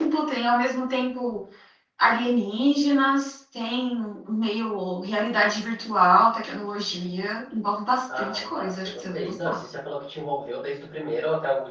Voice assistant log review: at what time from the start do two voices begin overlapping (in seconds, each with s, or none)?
8.1 s